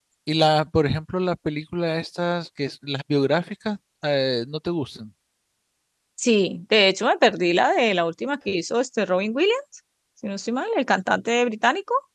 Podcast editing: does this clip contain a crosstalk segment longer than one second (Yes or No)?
No